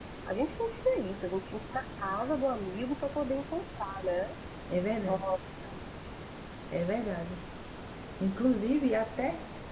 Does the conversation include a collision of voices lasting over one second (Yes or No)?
No